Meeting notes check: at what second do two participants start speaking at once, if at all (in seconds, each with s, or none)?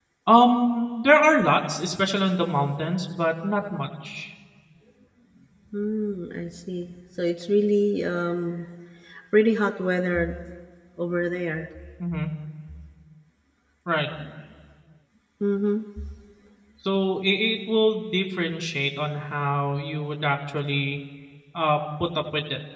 none